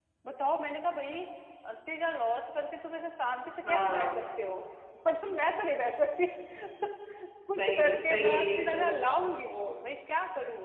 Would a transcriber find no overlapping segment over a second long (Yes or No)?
No